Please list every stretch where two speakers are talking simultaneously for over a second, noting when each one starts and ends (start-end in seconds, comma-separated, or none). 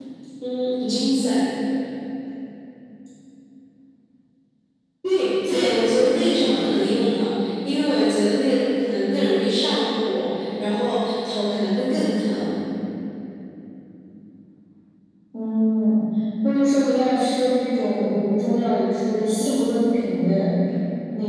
5.5-6.7